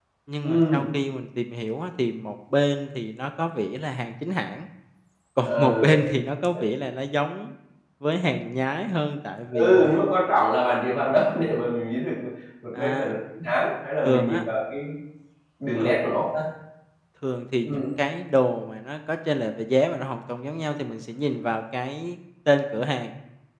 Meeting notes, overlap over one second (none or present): none